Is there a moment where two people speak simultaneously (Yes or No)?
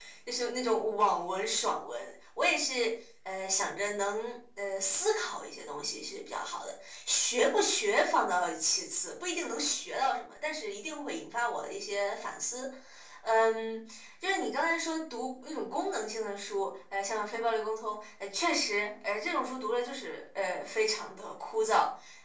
No